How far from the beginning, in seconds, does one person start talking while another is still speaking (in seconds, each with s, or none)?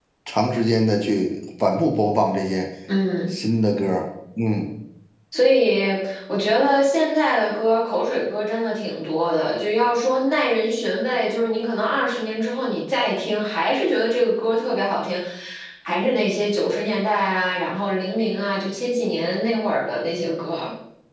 none